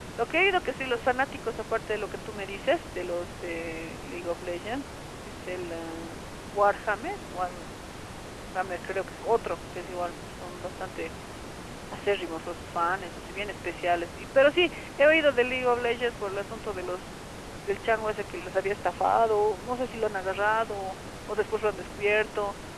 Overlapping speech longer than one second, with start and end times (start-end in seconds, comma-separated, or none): none